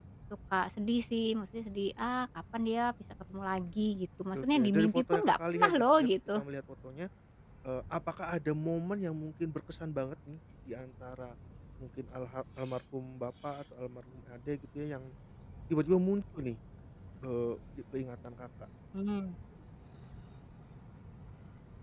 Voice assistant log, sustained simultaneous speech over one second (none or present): present